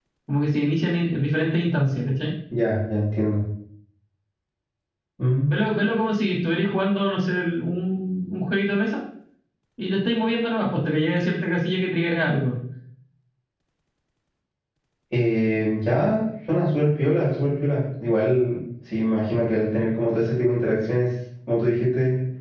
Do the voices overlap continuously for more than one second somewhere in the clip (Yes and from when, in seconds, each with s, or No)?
No